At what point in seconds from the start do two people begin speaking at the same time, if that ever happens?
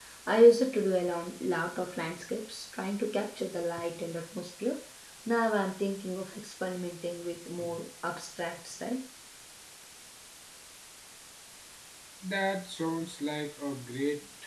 none

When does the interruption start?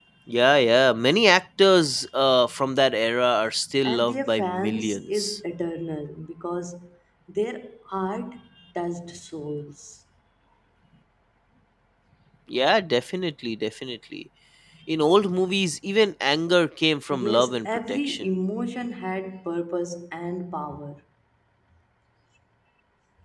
3.8 s

